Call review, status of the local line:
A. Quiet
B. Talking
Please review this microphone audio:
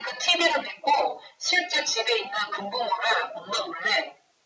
A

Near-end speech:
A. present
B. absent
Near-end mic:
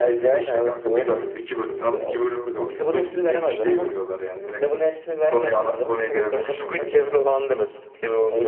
A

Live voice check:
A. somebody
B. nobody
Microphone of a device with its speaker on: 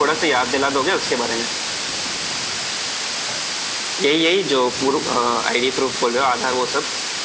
B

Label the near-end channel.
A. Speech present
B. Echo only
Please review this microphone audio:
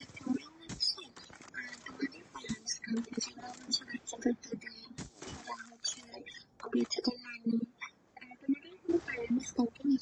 B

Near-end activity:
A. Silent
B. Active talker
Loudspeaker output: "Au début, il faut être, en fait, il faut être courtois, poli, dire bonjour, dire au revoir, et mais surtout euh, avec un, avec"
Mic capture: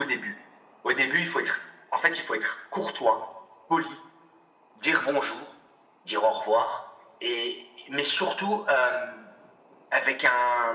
A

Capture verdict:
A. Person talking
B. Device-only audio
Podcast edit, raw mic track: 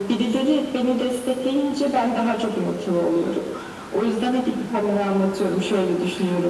B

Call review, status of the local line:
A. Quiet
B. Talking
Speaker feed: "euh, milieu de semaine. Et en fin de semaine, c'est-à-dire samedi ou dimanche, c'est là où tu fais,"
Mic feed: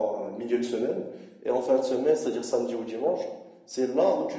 A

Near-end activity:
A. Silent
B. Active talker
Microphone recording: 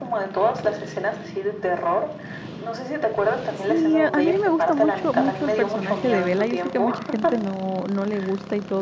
B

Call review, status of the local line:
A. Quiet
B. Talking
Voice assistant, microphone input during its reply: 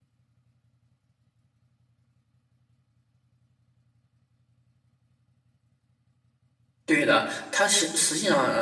B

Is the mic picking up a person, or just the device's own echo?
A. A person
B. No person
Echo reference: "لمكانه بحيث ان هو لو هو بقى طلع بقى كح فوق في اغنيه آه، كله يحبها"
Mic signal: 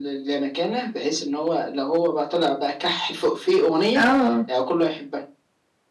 A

